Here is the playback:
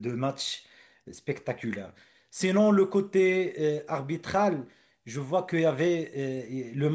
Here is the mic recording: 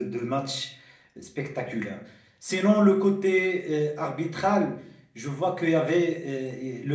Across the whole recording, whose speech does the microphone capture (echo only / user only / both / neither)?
echo only